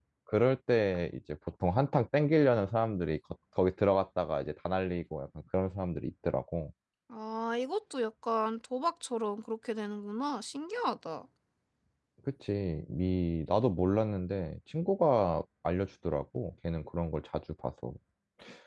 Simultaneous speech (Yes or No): No